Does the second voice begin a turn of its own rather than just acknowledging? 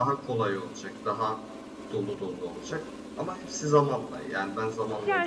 Yes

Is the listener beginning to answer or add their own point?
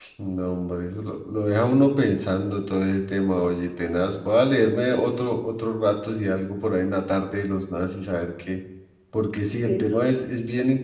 No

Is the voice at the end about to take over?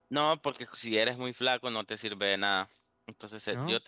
No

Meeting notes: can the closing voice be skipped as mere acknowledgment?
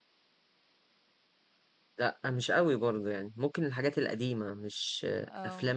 Yes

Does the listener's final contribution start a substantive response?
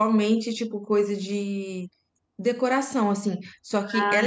No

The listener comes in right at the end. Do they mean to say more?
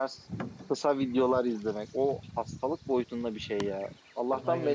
No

